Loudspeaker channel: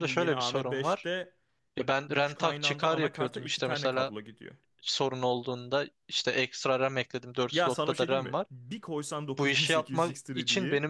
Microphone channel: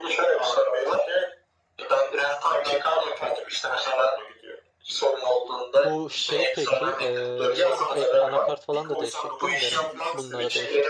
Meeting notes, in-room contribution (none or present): present